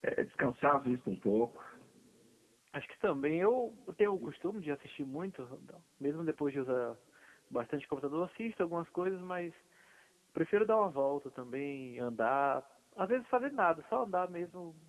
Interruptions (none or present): none